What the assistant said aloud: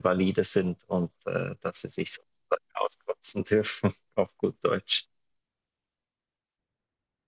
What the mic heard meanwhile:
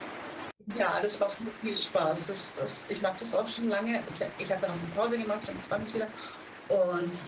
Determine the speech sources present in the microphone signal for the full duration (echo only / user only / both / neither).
user only